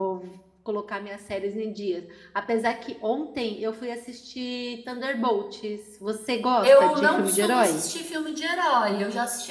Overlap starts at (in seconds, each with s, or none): 6.6 s